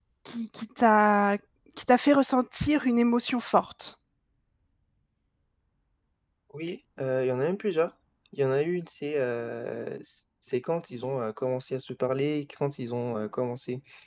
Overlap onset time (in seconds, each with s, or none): none